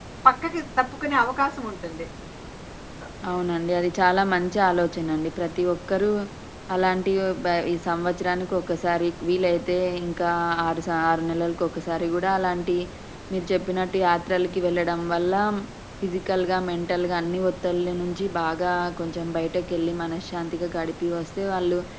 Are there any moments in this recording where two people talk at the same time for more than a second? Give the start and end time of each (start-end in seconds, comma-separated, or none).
none